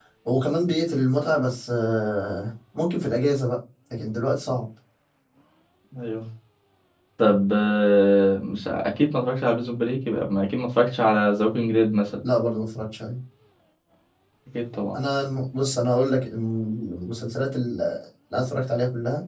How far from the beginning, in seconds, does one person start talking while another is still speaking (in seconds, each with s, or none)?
none